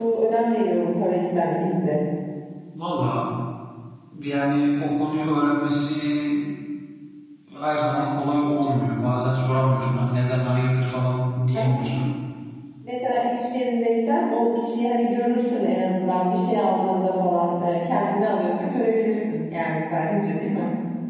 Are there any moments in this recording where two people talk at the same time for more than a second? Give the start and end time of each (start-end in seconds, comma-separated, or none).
none